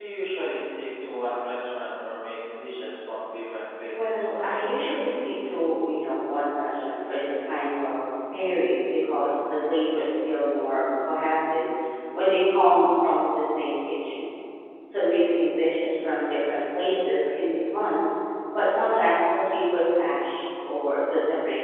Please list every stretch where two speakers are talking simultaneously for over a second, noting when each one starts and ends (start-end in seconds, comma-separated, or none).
3.9-5.3